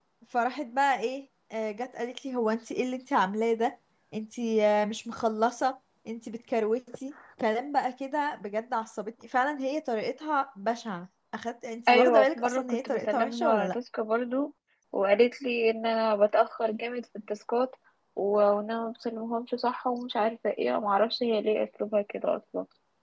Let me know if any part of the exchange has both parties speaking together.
Yes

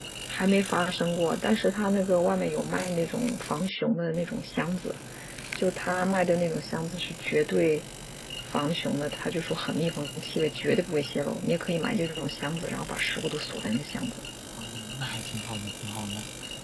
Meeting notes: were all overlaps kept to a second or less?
Yes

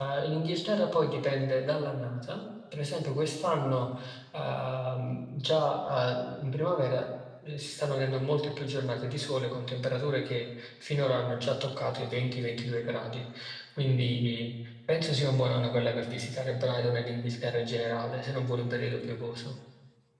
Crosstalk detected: No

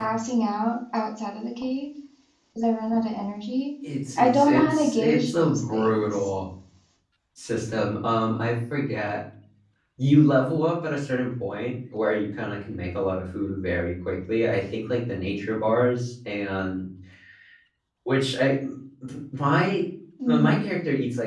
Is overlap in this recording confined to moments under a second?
No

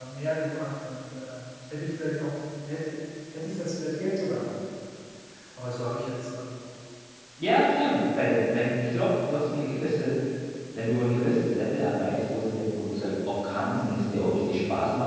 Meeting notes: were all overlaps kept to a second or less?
Yes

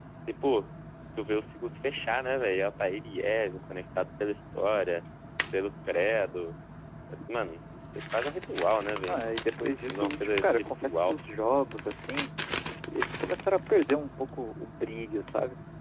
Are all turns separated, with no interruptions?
No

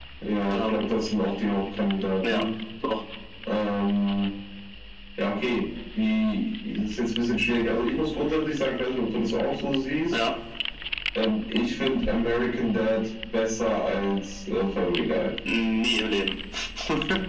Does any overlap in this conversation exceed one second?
No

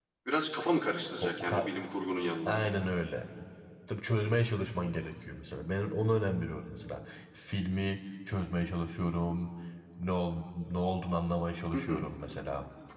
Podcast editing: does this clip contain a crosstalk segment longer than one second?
No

